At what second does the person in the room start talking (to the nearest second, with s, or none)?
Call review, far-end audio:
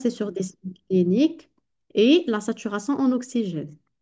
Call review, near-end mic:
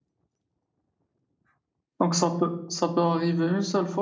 2 s